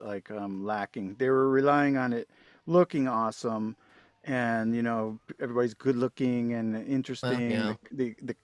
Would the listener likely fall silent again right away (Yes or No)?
Yes